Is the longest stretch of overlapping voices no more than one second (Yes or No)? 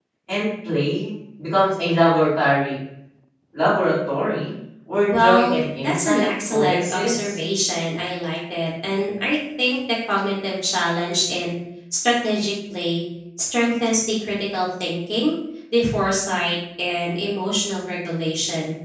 No